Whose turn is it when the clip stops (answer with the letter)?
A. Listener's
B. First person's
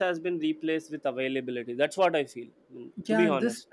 A